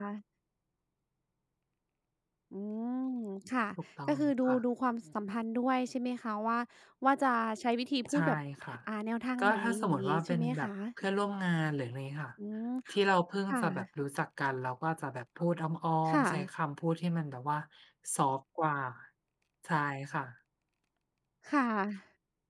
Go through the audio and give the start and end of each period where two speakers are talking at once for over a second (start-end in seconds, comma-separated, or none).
9.4-10.7